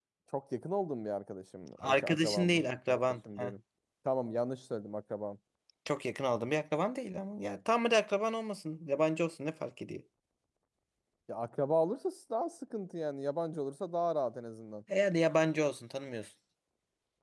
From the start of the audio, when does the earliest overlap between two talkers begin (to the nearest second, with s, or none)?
2 s